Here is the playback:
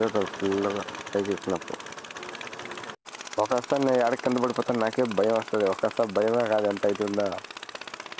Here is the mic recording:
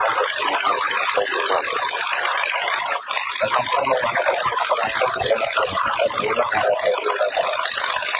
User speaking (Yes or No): No